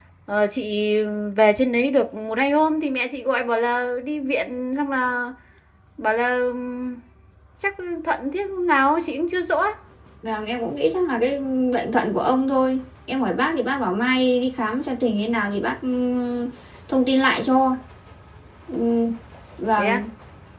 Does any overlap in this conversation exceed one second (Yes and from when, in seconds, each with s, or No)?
No